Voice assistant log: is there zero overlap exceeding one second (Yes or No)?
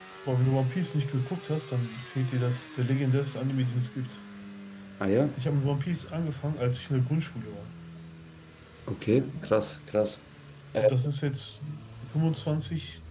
Yes